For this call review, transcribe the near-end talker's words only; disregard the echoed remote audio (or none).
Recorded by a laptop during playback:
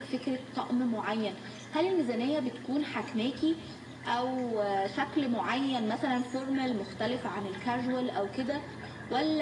none